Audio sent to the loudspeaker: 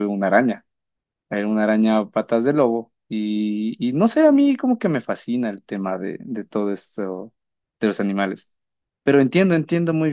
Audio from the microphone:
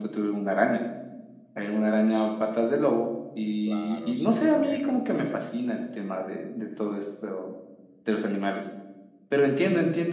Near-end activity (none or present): present